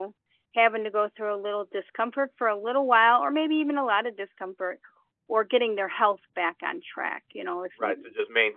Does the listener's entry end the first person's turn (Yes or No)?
Yes